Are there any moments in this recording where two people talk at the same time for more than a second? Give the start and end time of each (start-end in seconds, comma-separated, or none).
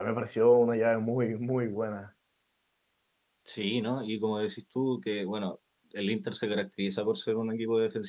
none